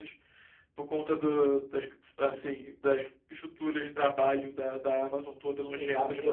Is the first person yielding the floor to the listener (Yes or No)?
Yes